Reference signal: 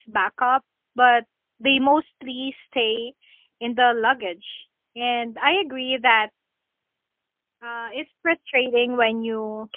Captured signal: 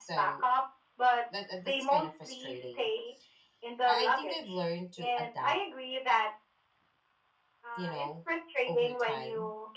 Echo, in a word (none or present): present